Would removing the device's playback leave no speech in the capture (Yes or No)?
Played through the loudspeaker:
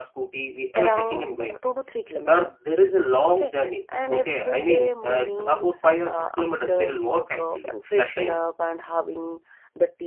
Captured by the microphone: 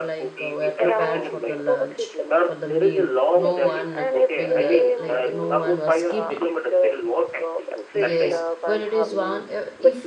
No